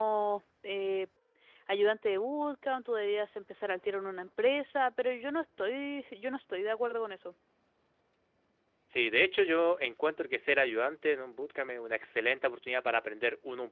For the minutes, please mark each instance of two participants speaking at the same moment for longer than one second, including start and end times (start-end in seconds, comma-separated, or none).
none